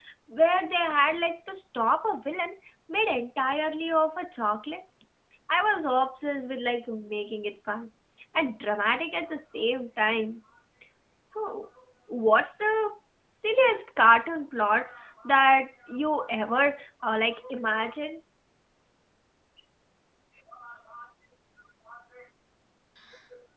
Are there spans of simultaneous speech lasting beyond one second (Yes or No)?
No